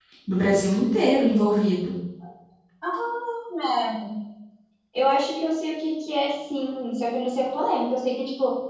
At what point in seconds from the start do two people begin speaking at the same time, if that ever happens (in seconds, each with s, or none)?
none